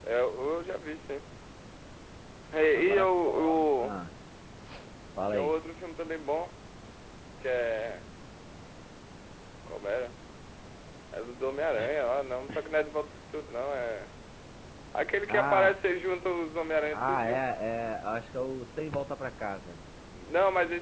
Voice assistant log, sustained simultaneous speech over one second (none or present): present